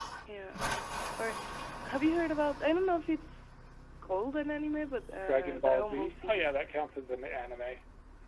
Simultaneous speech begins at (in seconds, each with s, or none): 5.2 s